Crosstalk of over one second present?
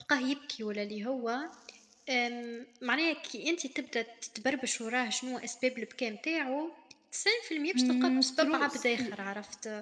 Yes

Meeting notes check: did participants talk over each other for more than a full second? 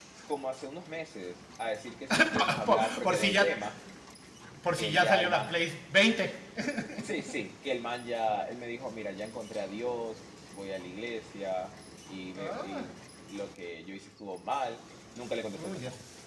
Yes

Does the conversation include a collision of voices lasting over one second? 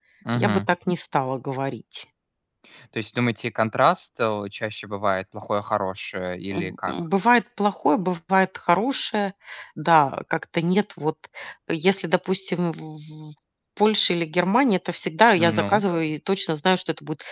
No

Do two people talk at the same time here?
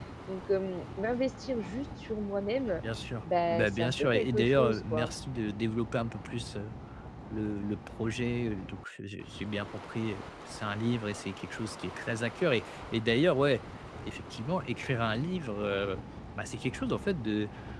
Yes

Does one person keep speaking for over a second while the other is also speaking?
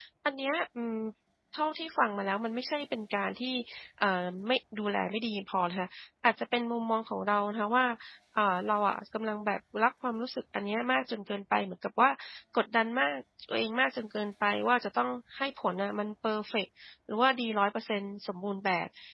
No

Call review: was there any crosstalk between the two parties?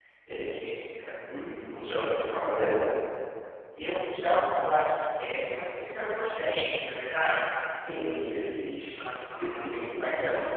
Yes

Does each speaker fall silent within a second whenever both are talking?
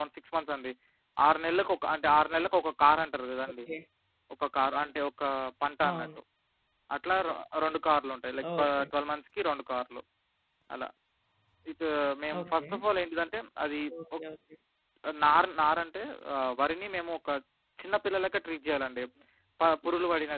Yes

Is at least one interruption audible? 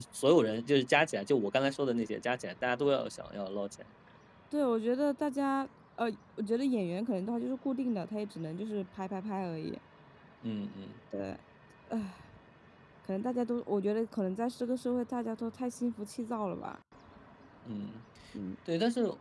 No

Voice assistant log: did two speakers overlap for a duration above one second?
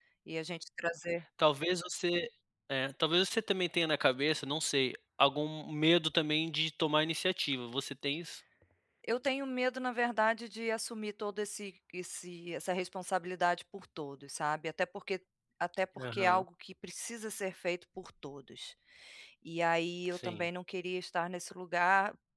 No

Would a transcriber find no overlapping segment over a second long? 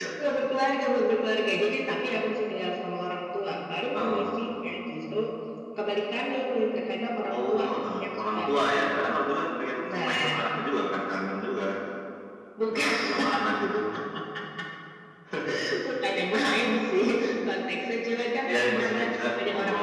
No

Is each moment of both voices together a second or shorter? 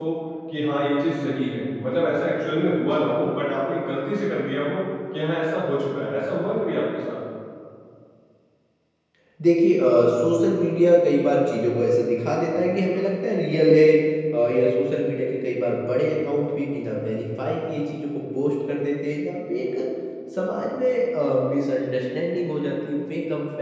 Yes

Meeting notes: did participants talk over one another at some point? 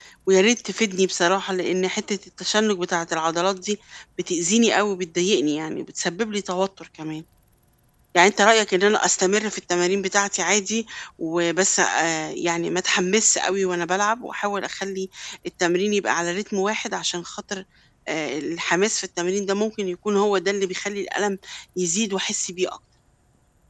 No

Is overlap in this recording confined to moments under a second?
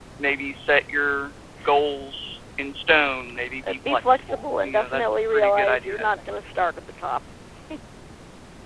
No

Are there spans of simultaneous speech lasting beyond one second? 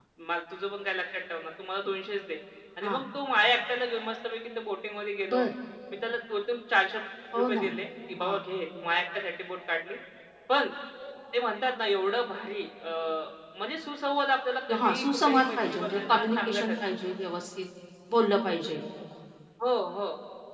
Yes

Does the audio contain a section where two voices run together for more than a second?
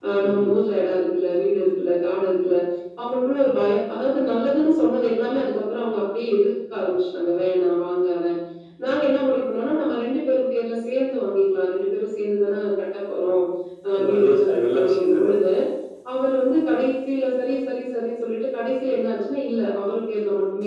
Yes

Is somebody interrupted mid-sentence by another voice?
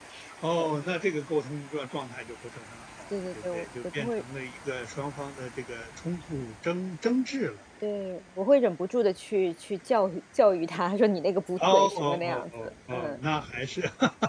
Yes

